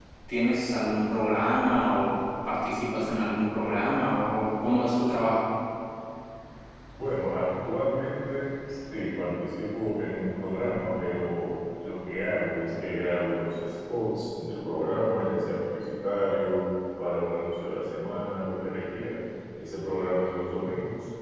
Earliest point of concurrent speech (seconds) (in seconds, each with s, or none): none